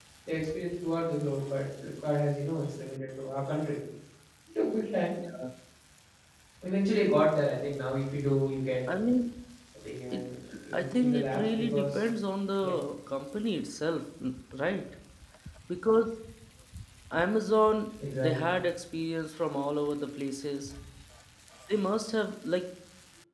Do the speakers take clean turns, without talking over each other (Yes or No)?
No